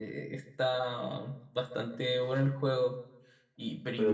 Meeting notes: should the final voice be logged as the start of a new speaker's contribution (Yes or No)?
No